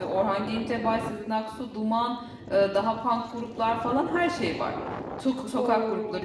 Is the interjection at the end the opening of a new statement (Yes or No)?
No